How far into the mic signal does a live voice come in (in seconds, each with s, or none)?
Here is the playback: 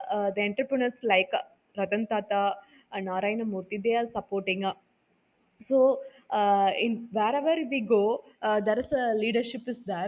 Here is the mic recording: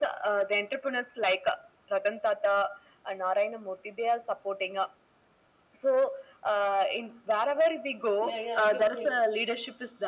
8.2 s